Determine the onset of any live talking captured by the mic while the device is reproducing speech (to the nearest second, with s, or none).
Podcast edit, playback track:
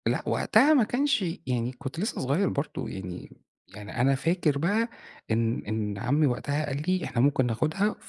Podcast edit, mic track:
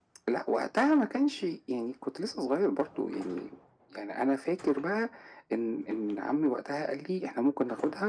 none